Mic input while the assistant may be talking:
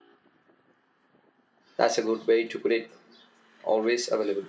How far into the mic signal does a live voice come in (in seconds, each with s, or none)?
1.8 s